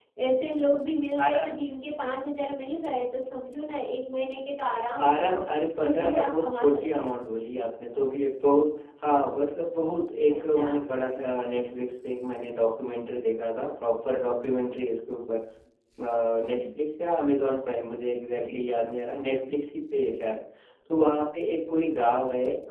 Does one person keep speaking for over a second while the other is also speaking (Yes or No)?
Yes